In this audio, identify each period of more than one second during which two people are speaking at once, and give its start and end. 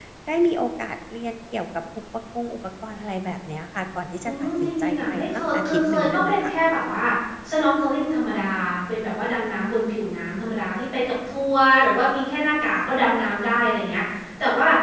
4.2-6.5

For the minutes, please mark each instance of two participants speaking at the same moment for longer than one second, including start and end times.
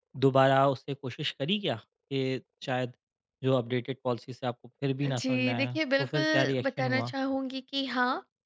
5.2-7.1

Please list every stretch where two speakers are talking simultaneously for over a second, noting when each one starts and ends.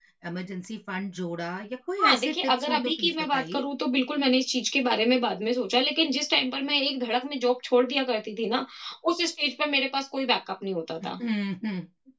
2.0-3.6

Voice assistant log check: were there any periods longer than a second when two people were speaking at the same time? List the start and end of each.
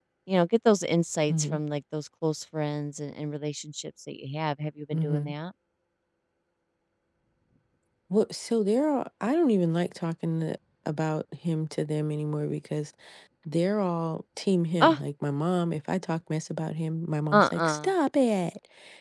none

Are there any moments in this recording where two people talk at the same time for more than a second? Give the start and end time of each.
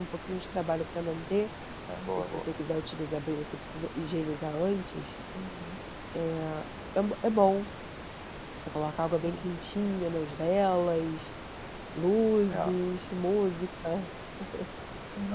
none

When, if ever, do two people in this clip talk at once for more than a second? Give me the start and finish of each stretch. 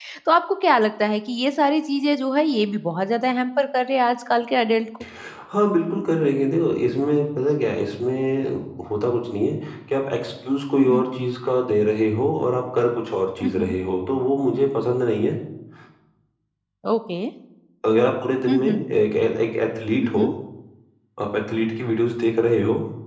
none

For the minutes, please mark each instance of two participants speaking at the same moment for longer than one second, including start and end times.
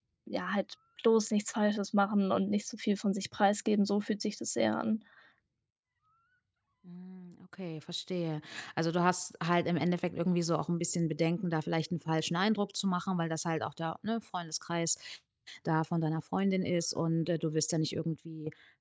none

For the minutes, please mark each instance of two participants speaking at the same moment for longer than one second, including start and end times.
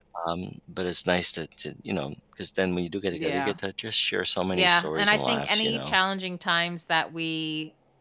4.5-6.0

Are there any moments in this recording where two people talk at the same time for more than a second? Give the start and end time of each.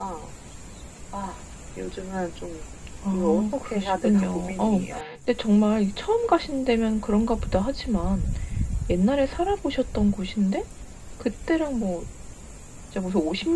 3.1-4.8

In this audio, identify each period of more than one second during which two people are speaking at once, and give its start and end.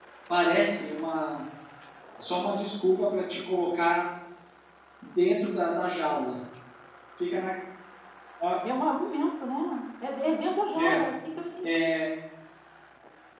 none

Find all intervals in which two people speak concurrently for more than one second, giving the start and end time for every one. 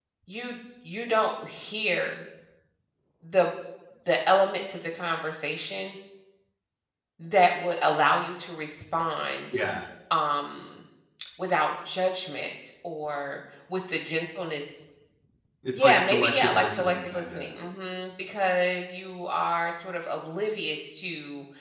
15.7-17.5

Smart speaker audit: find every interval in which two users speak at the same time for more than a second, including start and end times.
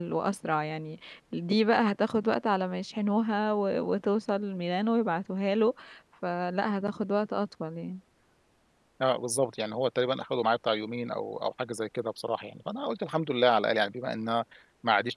none

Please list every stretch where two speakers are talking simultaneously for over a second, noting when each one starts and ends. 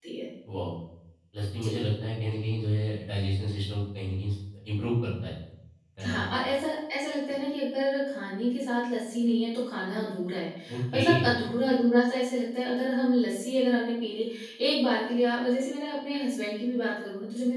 none

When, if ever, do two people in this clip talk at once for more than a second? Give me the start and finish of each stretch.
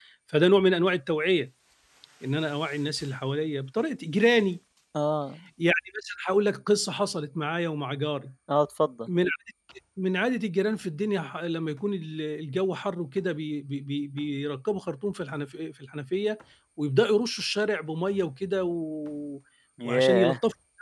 none

